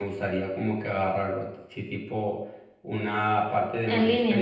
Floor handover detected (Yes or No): No